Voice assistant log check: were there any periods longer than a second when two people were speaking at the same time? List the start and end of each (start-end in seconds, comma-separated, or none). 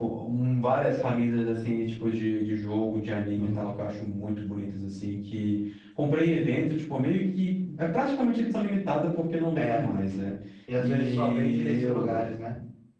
10.8-12.3